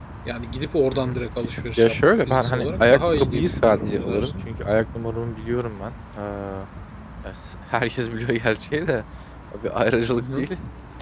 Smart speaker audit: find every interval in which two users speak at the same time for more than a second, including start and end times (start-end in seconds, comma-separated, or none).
1.8-4.3